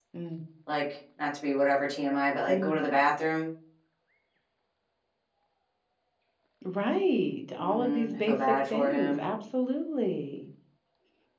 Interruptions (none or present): present